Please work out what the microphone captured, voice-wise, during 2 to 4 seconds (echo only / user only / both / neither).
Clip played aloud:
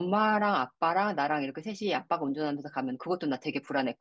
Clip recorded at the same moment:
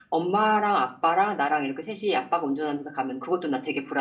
echo only